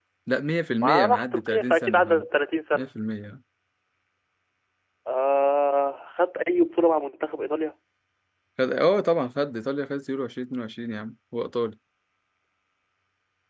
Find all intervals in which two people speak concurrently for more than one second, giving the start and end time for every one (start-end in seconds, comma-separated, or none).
0.8-2.2